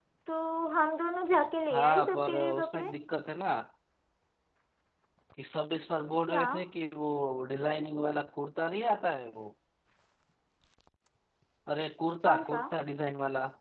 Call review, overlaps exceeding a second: present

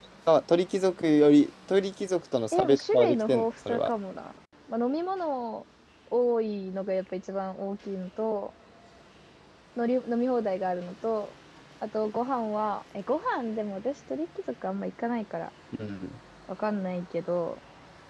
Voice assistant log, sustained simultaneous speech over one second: present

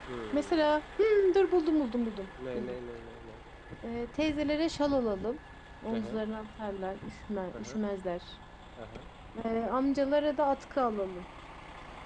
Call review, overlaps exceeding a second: none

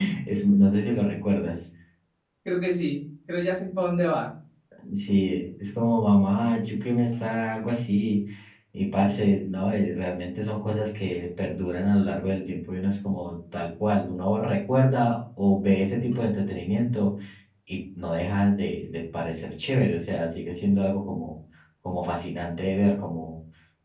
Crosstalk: none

